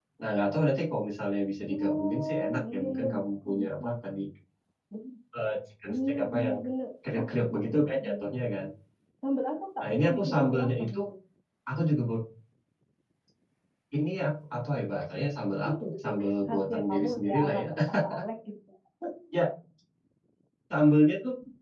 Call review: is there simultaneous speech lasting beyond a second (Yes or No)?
Yes